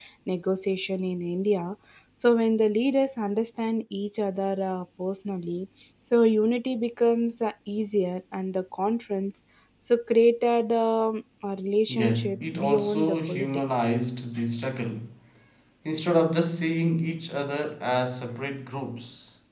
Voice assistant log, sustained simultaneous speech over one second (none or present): present